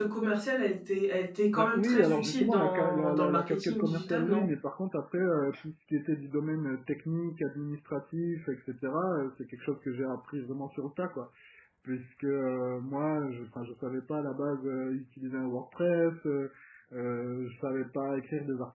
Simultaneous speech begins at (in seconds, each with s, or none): 1.5 s